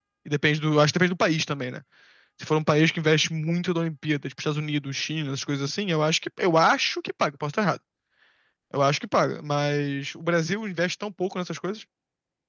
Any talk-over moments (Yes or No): No